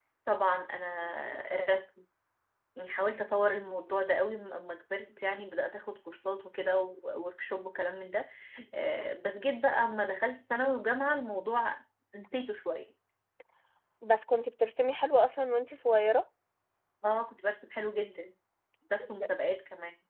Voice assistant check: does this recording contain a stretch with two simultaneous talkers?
No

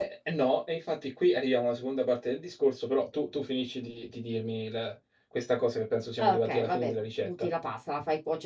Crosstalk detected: Yes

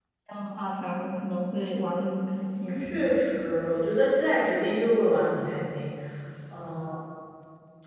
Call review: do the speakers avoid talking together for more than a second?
Yes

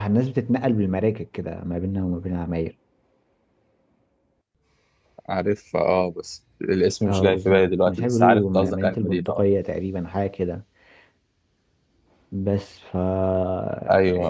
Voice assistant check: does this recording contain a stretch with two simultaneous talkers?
Yes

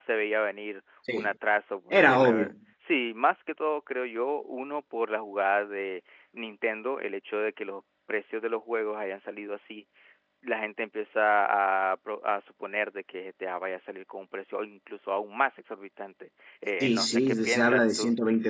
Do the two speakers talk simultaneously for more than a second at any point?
Yes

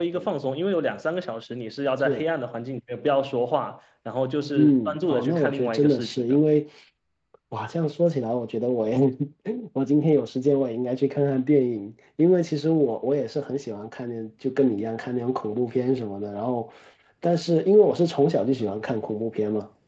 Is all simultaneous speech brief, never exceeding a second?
No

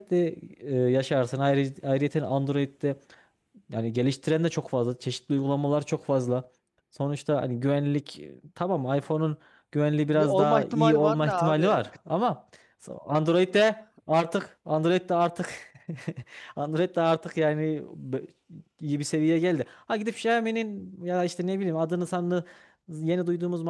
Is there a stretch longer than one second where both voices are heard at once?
Yes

